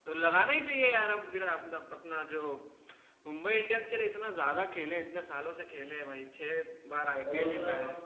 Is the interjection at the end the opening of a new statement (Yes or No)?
Yes